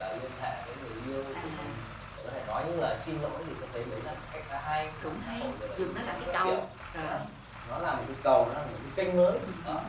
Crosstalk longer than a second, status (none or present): present